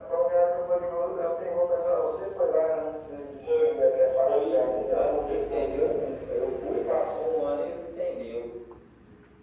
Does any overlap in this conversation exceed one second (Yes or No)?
Yes